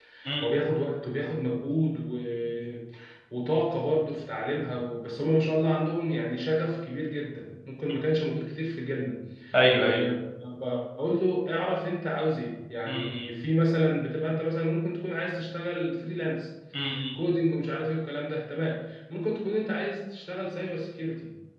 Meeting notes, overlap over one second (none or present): none